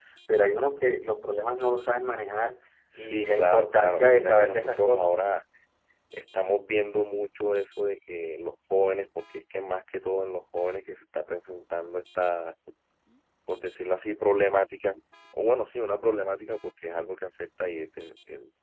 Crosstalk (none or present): present